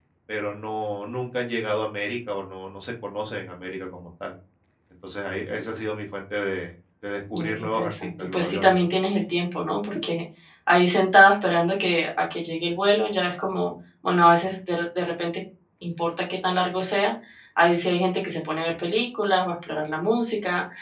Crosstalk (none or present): present